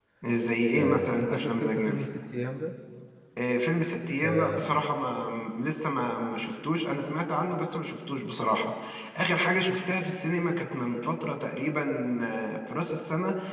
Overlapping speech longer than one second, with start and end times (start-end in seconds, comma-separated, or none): 0.8-2.0